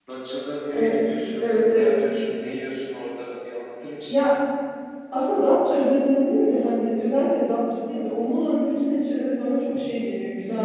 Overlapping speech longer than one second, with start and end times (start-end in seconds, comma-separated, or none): 0.7-2.0